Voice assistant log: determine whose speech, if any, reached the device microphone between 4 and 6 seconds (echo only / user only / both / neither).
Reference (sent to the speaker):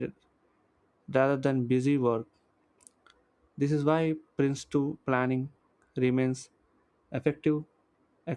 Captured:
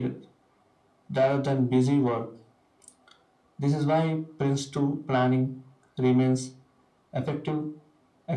echo only